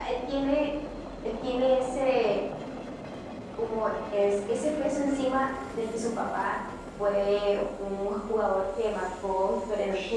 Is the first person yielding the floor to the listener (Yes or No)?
Yes